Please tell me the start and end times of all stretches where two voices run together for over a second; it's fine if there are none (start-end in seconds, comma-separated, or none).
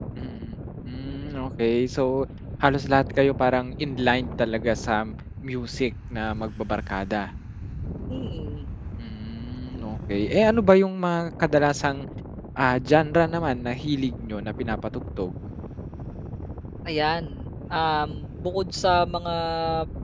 none